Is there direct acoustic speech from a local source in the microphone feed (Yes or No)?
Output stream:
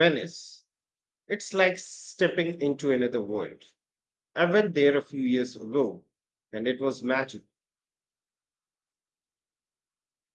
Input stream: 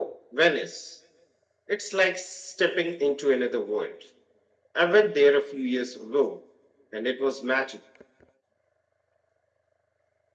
No